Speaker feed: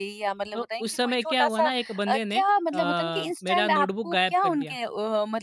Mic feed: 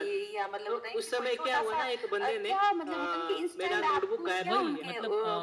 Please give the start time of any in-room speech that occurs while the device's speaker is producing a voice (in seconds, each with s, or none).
4.5 s